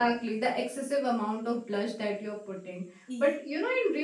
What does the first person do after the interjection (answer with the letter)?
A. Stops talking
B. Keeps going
B